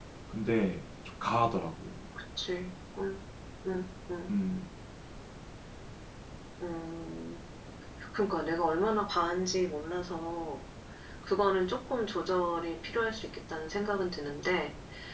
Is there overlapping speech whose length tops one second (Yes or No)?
No